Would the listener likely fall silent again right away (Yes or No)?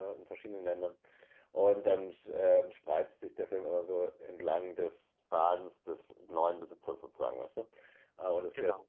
Yes